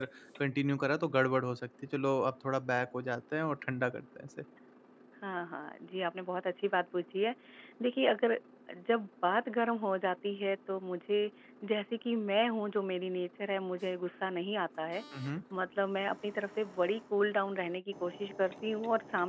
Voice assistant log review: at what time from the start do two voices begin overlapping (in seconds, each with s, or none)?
none